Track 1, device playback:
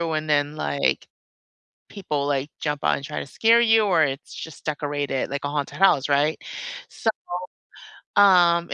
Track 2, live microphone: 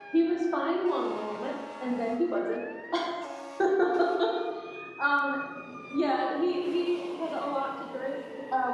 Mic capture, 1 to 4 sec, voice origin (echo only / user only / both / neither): user only